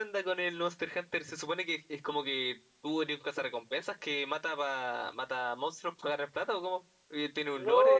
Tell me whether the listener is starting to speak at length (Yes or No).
Yes